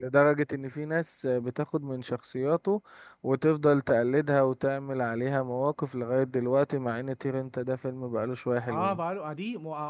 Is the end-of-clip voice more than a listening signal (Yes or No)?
Yes